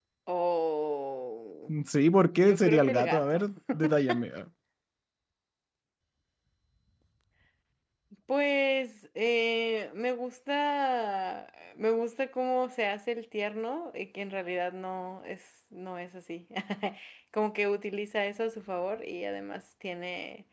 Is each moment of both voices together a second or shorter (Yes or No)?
No